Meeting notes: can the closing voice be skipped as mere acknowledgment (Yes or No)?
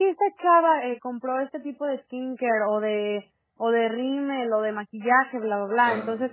Yes